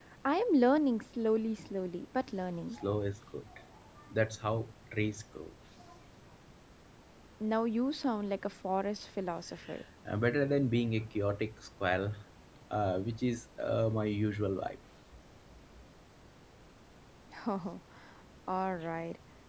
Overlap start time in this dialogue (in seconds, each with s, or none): none